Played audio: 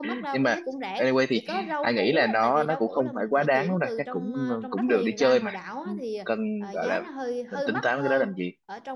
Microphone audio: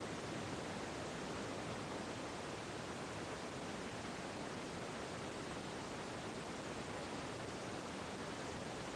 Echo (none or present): none